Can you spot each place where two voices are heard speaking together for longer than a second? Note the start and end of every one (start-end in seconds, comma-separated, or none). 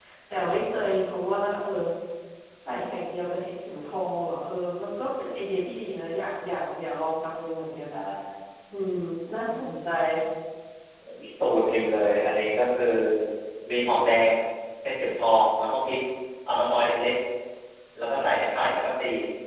none